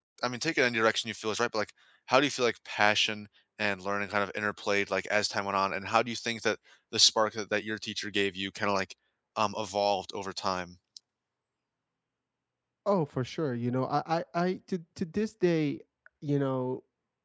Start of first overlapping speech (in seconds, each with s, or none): none